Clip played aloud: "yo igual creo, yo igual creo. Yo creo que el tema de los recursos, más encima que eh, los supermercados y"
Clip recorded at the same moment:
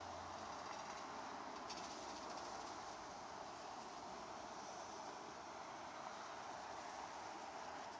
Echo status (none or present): none